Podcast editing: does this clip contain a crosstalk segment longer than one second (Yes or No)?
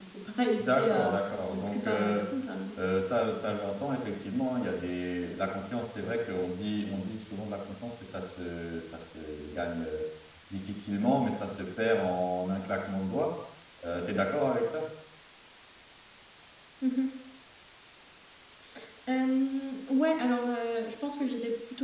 Yes